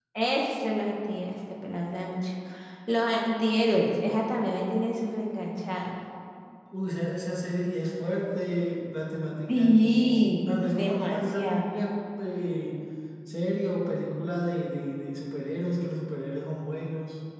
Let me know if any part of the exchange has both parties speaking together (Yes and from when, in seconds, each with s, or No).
Yes, from 9.5 s